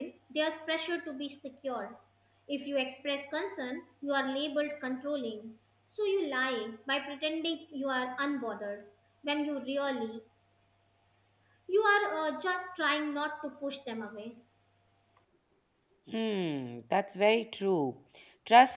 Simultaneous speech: No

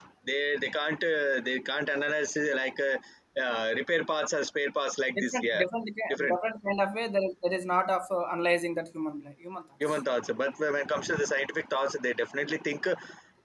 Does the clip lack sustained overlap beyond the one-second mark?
Yes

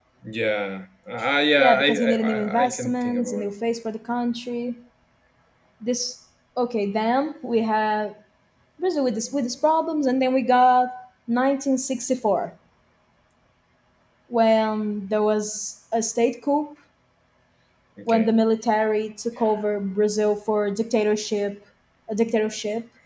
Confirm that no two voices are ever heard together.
No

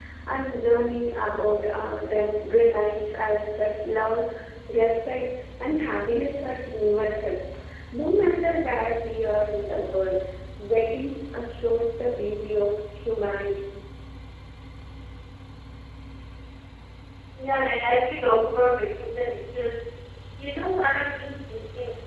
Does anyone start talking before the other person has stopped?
No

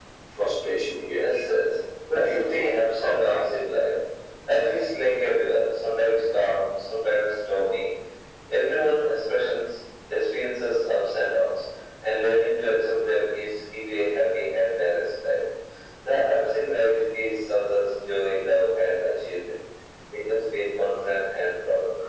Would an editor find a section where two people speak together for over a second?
Yes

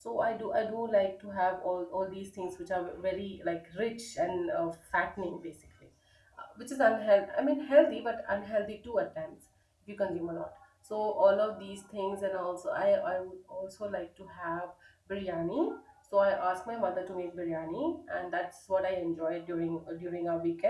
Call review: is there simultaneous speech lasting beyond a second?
No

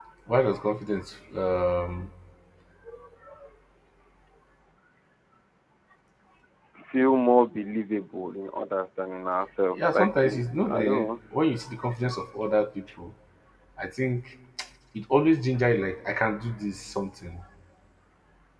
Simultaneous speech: Yes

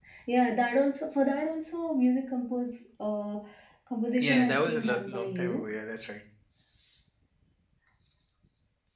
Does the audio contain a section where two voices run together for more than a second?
Yes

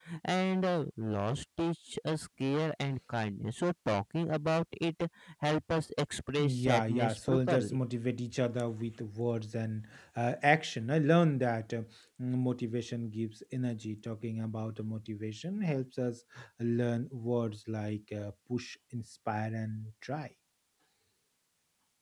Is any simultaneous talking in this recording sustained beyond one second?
Yes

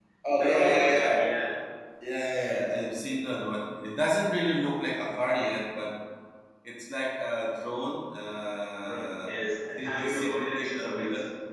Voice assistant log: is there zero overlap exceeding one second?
No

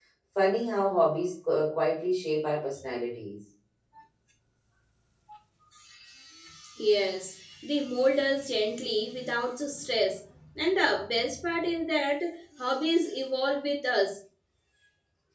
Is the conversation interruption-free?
Yes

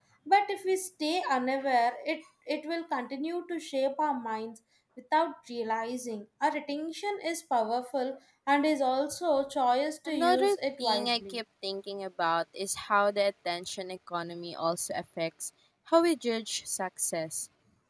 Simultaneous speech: Yes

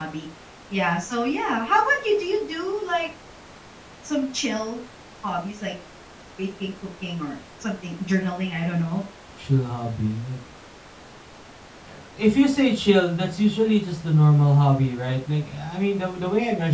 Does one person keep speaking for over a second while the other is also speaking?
No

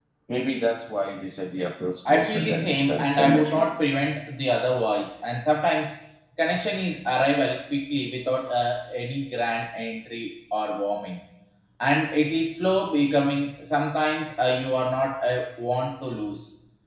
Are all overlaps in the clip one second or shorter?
No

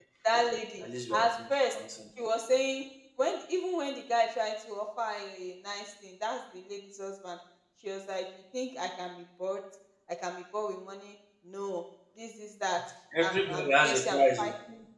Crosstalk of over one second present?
Yes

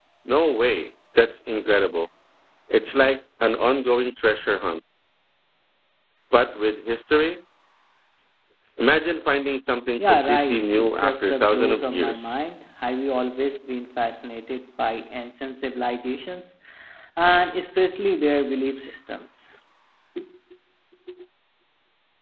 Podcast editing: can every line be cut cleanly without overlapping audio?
No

